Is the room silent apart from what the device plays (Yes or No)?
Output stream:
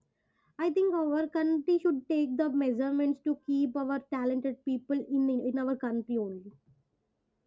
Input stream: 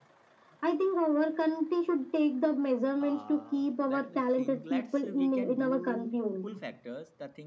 No